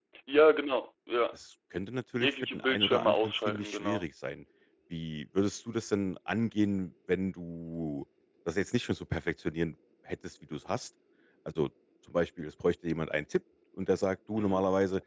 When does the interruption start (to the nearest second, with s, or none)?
2 s